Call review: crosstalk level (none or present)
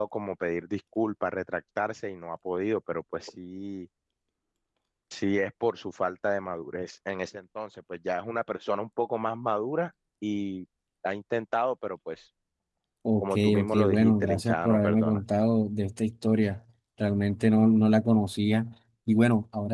present